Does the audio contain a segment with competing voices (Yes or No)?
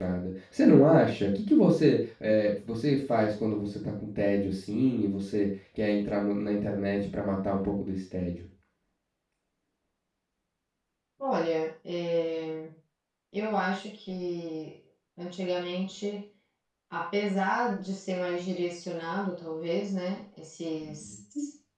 No